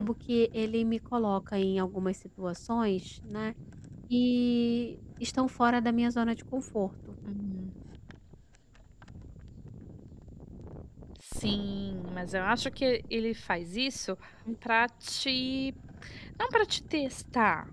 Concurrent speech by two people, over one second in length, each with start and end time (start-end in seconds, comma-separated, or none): none